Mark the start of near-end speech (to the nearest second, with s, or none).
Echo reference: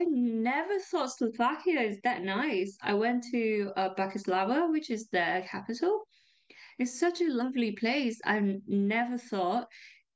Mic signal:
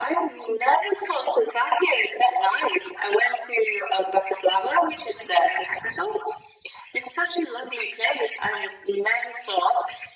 none